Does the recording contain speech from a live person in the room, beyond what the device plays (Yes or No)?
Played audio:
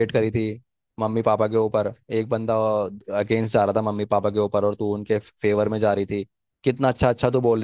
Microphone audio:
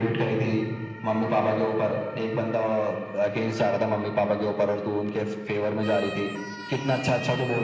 No